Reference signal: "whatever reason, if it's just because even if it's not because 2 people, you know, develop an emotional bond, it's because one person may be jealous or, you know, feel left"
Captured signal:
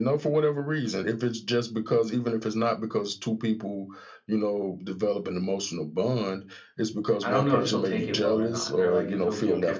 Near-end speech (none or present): present